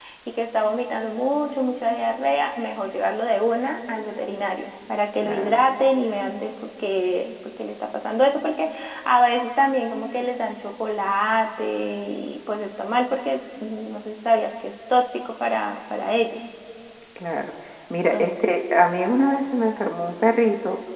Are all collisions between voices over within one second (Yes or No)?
Yes